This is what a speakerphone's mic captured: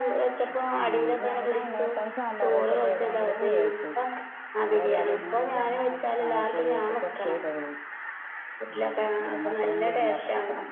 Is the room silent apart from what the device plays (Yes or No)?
No